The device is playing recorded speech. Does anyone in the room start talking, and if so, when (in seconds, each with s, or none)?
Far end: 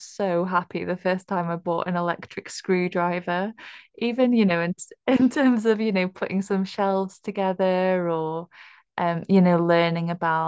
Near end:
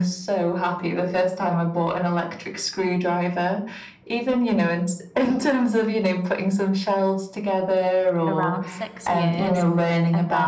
8.3 s